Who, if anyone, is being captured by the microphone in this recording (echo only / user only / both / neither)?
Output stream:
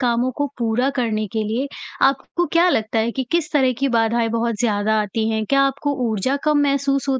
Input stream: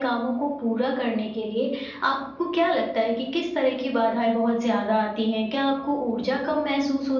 echo only